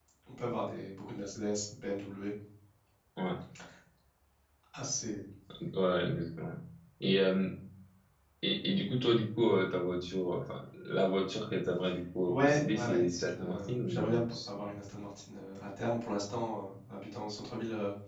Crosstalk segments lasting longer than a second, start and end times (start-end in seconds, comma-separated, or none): 12.2-14.5